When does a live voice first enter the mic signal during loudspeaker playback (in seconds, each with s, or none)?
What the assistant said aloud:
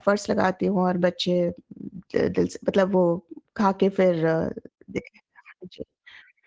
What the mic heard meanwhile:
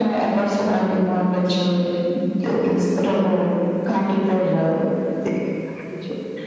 none